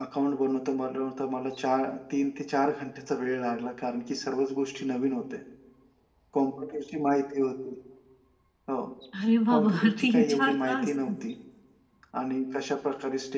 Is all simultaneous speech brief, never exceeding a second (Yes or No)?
No